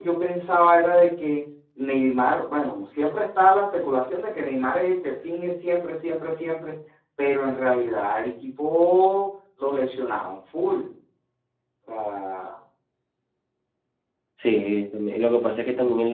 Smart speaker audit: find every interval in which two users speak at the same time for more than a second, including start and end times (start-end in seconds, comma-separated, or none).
none